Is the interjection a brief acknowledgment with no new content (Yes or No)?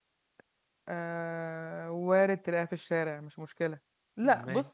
Yes